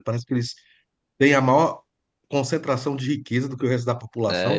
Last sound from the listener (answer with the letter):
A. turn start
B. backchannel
A